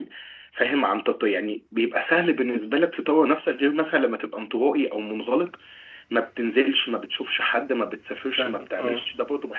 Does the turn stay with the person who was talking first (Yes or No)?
Yes